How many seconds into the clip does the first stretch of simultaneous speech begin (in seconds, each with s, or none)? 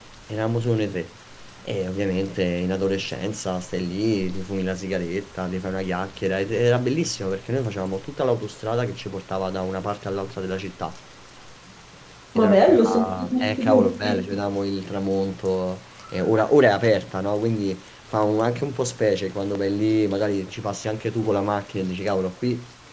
12.3 s